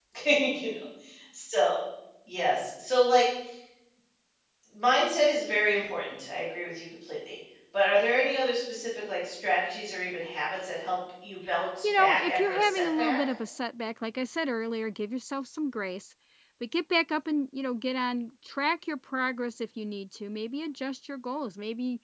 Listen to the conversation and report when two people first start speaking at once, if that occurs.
11.8 s

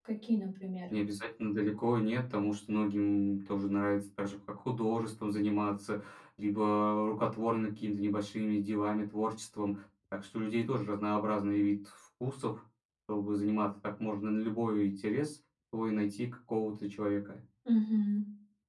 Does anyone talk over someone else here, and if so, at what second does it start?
none

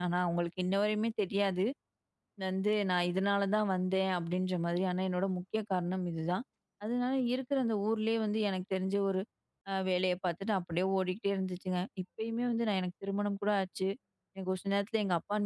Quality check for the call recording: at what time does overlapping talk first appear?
none

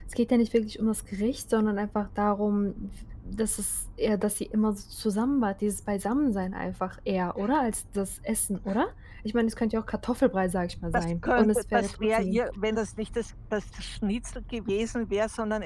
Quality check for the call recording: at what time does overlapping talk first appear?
10.9 s

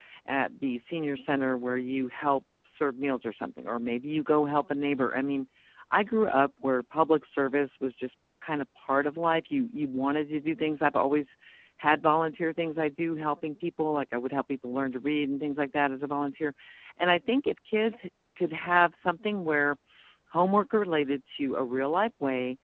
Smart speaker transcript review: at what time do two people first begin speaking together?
none

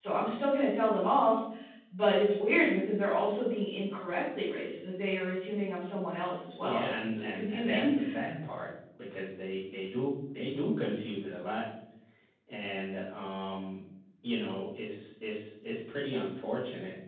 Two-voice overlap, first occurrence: 6.6 s

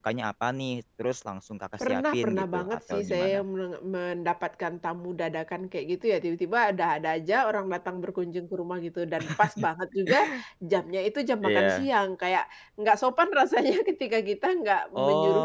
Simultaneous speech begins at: 1.8 s

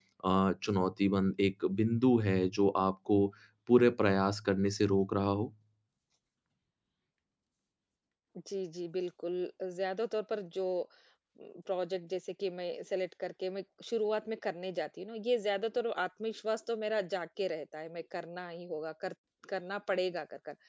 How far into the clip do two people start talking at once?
none

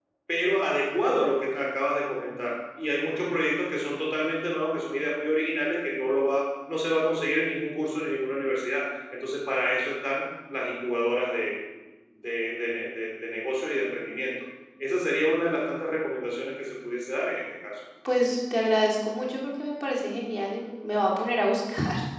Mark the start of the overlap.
none

